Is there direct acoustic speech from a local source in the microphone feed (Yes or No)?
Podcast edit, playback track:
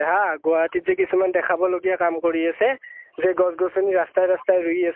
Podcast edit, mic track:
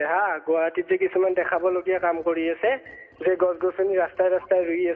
No